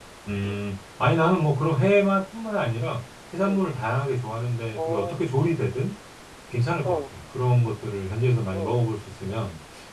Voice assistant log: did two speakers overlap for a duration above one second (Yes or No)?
No